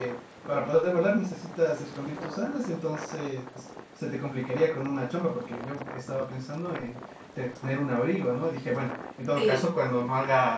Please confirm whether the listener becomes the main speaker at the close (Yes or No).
No